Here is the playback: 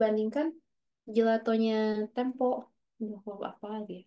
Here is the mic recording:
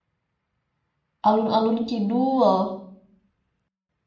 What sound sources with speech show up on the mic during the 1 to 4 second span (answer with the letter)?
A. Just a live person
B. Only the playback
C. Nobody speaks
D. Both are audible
A